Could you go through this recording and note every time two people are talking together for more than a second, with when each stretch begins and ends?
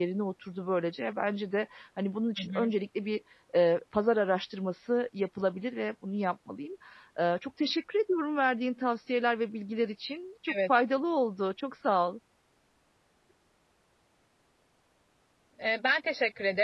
none

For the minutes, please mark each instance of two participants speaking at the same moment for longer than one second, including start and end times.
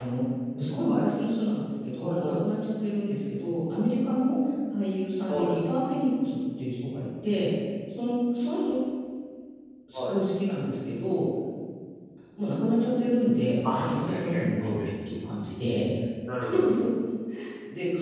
13.7-15.2

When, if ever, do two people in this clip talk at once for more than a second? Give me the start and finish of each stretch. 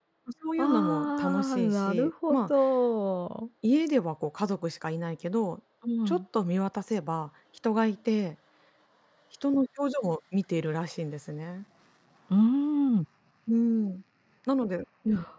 0.6-2.5

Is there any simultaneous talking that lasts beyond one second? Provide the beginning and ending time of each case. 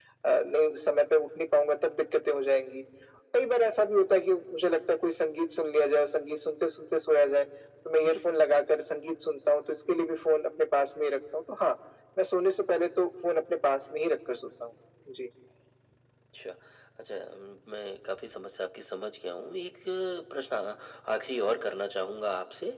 none

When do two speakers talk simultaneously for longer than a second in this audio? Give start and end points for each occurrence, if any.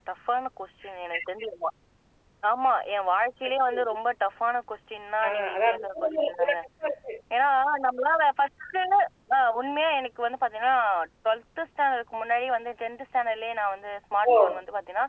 5.3-6.6

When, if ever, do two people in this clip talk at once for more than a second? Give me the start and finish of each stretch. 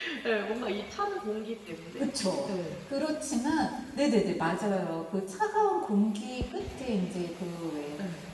none

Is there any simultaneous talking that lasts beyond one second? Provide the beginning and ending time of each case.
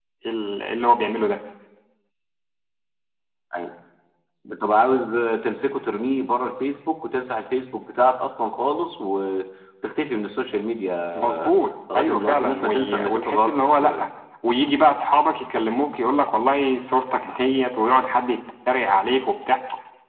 12.0-14.0

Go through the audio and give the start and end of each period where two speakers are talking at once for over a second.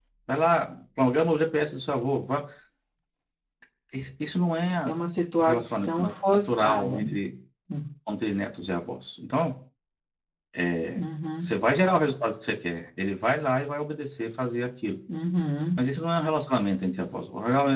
5.4-7.0

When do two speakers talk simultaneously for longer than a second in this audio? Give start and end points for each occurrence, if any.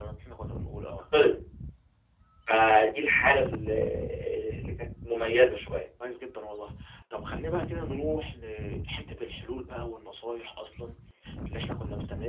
none

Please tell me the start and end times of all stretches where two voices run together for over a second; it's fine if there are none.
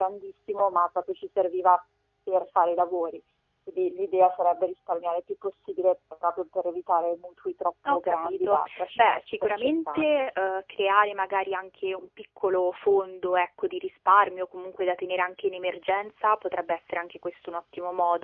7.9-10.2

